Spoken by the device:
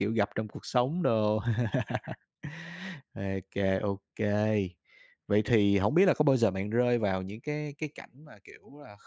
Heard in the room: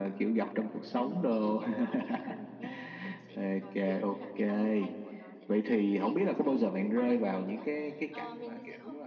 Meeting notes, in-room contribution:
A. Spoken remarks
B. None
A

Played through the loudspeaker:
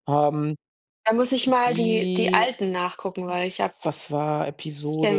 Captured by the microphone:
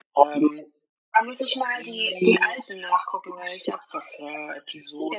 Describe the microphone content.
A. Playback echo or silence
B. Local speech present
A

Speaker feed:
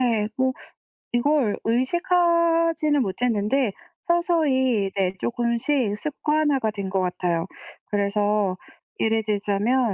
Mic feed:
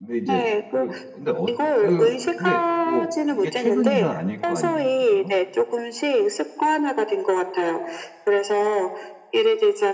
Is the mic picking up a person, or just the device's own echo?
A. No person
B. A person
B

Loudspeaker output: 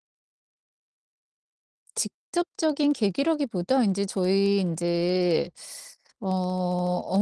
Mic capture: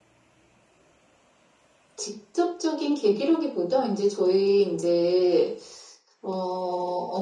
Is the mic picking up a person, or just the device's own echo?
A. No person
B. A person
A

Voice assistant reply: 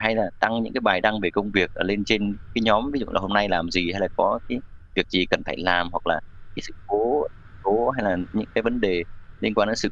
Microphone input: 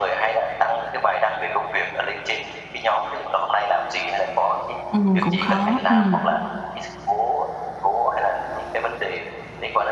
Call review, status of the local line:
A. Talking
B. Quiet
A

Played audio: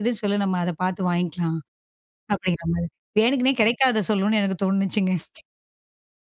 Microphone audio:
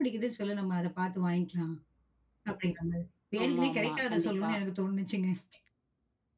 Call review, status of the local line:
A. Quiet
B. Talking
B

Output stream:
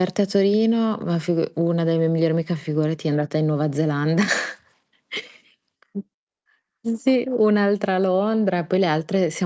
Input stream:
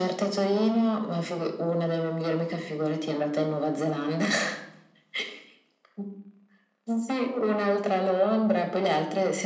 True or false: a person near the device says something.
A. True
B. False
B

